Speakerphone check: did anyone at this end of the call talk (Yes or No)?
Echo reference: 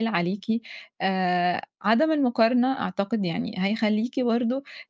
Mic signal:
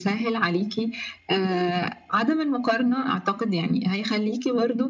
No